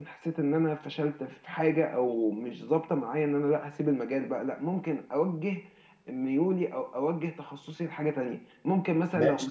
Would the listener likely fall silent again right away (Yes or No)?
No